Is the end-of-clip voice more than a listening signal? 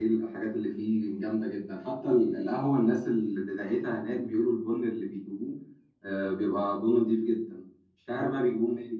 No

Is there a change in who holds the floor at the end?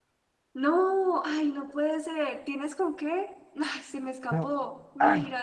Yes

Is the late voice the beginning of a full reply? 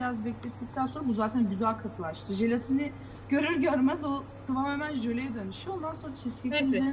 No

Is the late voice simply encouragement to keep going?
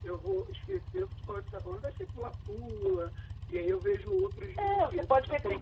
No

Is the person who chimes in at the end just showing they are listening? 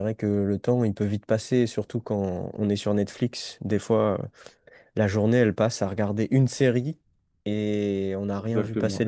No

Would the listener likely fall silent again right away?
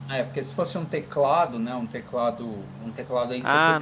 No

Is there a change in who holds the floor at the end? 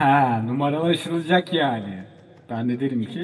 Yes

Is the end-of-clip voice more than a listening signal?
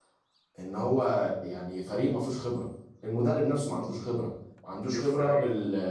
No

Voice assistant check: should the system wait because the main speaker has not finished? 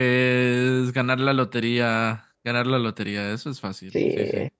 No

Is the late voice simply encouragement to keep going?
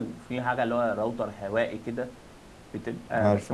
Yes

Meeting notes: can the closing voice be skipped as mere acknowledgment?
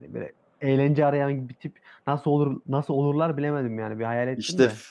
No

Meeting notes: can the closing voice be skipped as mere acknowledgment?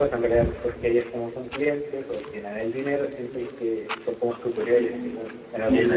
No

